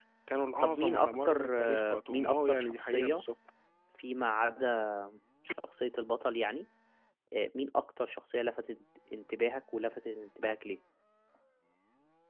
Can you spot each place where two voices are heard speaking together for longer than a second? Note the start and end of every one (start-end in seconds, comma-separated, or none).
0.6-3.2